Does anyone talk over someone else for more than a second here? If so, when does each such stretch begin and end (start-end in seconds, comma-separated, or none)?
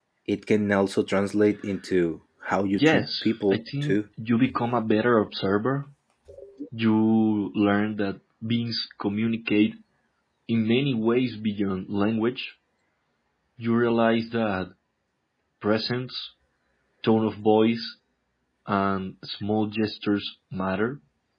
2.8-4.0